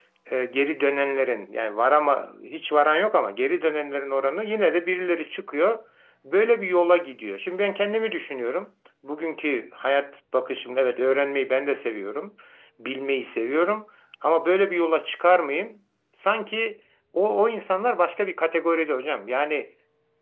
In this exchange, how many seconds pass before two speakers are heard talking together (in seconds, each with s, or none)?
none